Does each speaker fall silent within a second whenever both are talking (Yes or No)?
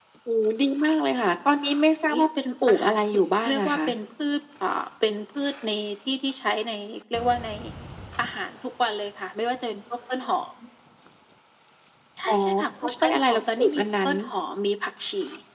No